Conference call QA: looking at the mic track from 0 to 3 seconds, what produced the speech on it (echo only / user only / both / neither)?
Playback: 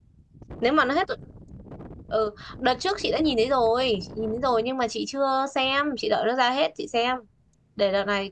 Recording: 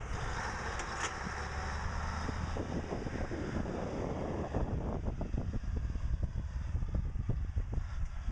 neither